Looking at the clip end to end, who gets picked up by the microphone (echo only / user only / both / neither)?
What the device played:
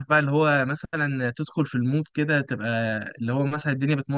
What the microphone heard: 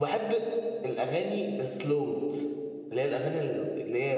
user only